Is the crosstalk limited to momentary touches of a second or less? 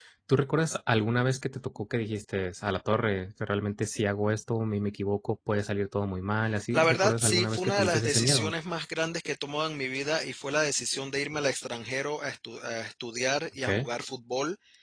No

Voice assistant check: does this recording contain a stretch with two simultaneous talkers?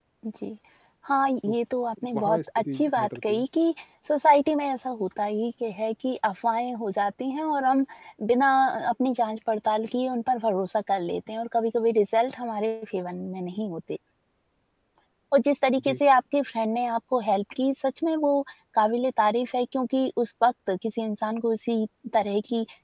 Yes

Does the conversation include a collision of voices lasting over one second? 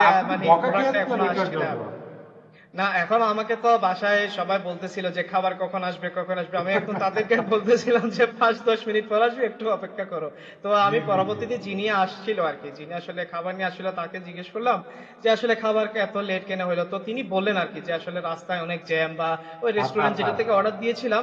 Yes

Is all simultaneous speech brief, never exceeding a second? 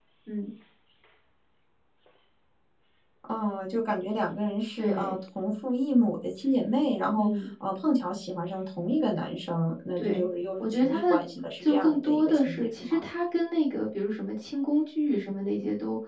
No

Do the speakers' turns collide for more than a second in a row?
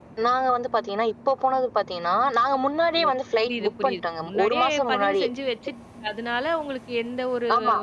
Yes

